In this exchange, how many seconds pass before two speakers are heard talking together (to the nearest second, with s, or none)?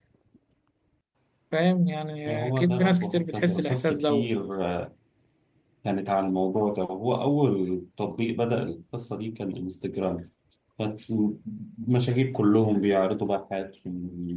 2 s